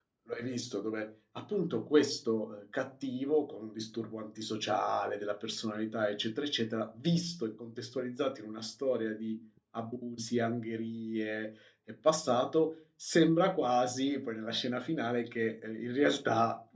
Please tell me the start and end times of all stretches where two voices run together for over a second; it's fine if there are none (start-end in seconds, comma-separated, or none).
none